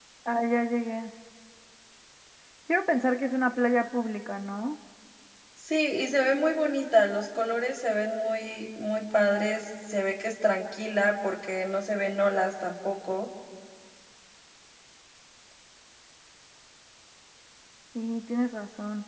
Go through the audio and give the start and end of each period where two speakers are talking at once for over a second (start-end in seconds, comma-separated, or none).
none